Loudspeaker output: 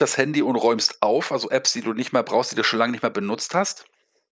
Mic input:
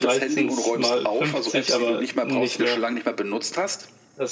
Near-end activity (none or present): present